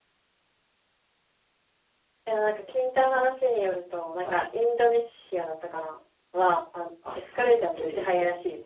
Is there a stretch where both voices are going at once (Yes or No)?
Yes